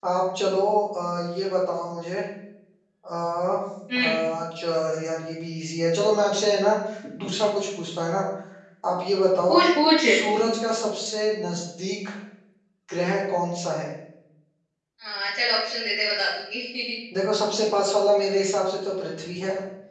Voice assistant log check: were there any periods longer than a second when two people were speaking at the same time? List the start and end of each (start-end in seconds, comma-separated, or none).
none